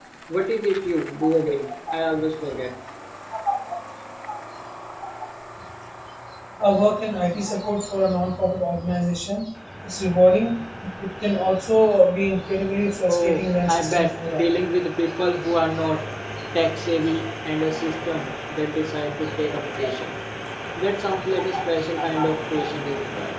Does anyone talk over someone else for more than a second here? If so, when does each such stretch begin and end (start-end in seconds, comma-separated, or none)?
13.1-14.4